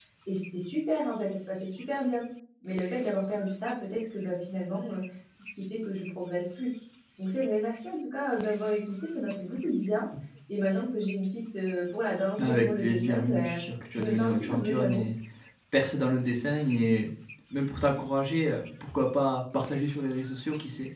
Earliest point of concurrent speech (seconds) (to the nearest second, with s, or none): 12 s